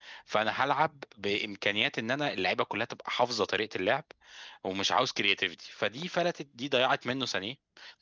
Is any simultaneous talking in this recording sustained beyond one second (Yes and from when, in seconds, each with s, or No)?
No